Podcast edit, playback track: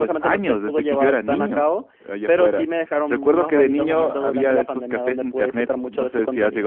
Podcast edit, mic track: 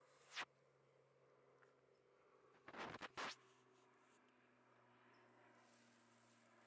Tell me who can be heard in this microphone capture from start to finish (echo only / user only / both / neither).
neither